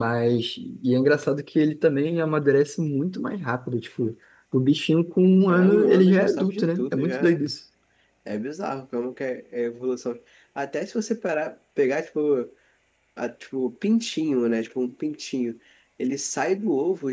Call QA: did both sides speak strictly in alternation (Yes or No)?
No